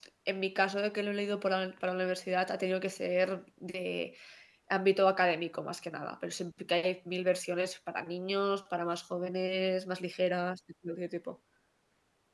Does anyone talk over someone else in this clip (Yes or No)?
No